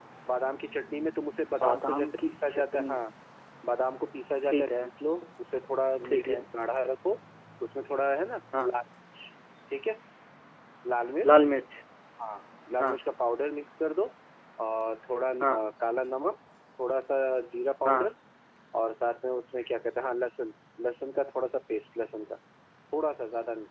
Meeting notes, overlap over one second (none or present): present